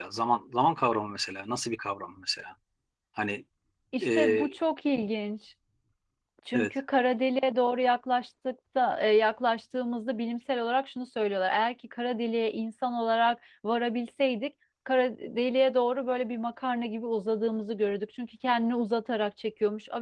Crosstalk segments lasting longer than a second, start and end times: none

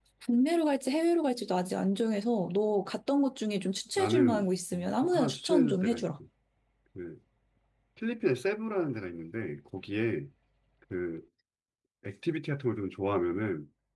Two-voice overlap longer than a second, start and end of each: 4.0-6.0

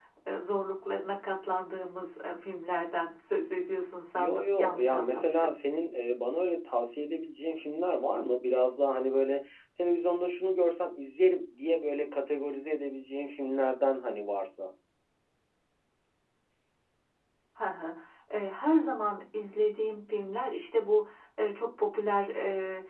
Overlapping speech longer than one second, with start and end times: 4.2-5.5

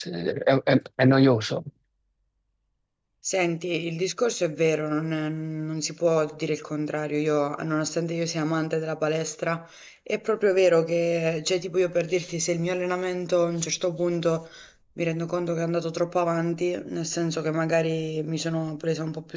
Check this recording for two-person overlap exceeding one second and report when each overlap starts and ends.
none

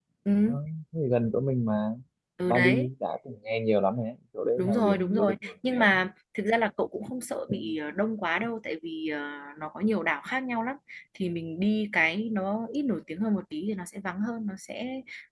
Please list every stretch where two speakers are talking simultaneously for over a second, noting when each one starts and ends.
4.6-5.9

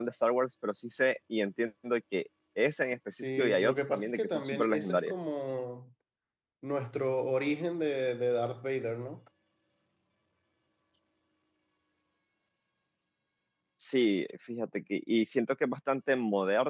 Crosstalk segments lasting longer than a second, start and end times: 3.1-5.1

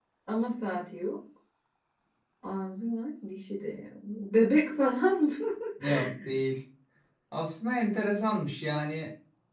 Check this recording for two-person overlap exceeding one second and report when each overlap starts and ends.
none

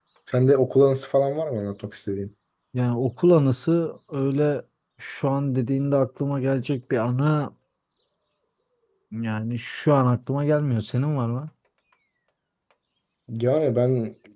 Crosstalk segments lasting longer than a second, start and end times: none

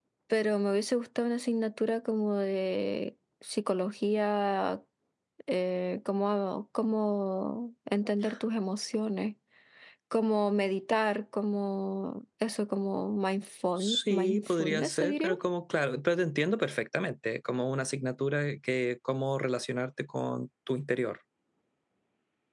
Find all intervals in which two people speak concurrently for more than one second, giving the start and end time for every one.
13.8-15.3

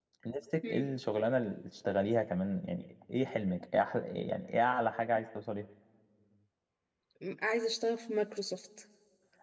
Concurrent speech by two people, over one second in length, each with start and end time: none

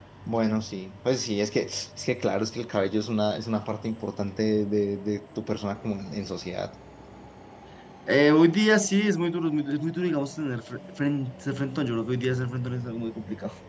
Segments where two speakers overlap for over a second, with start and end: none

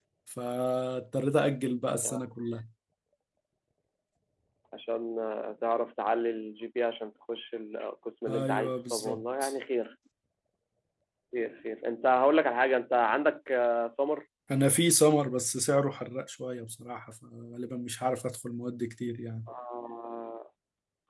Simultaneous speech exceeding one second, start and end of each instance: 8.3-9.5

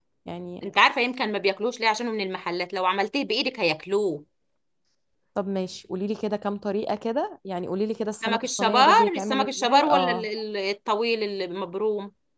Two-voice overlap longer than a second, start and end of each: 8.2-10.3

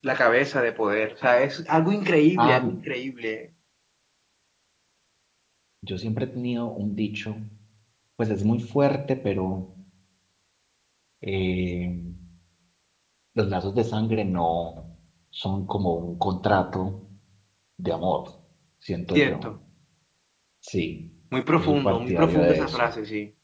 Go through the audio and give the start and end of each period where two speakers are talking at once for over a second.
21.6-22.9

